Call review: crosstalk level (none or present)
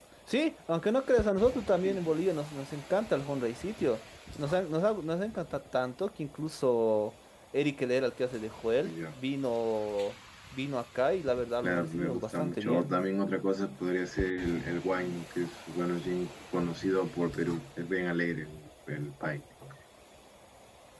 present